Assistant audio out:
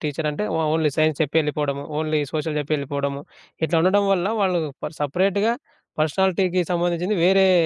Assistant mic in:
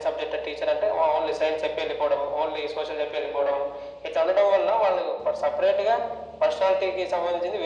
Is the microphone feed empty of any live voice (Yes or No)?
Yes